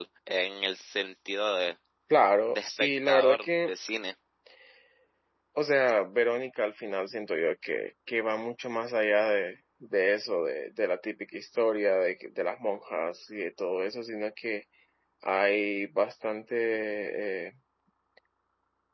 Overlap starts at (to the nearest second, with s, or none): 2 s